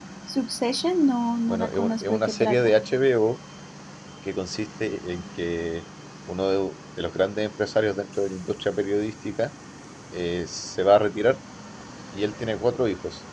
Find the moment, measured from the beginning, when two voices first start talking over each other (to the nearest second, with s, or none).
1 s